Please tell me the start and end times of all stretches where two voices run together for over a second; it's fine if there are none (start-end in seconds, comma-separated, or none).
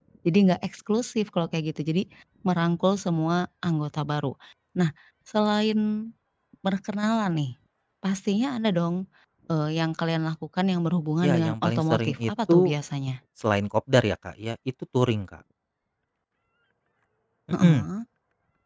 11.2-12.6